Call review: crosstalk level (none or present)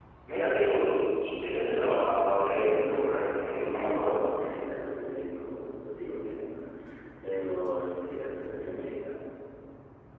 present